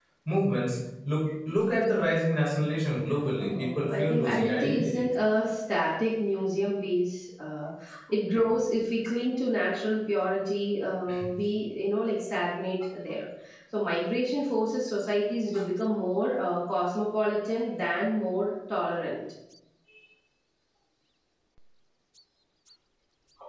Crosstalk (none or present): present